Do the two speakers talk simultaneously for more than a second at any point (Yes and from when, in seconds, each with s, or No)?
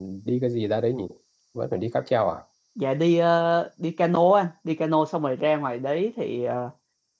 No